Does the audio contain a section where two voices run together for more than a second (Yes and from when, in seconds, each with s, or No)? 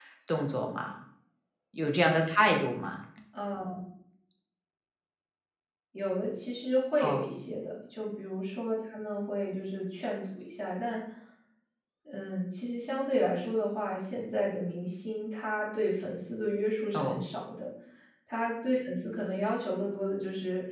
No